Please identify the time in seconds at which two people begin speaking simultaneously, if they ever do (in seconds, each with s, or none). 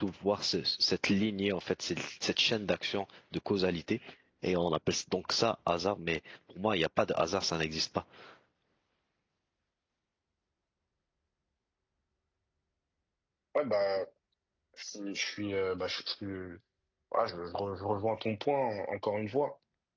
none